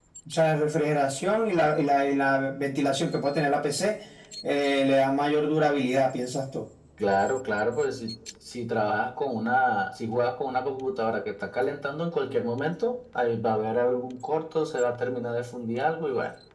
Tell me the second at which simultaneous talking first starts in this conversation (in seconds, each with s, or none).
none